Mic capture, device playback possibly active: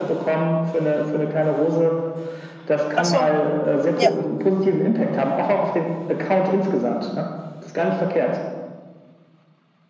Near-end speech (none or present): present